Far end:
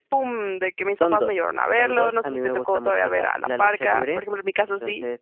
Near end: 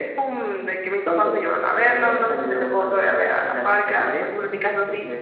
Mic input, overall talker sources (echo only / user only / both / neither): echo only